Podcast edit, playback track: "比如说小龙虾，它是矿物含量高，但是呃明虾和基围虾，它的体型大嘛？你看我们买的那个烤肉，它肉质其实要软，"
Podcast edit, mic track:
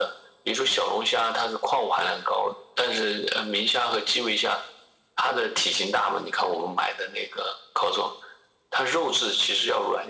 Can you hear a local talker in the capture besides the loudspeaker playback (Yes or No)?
No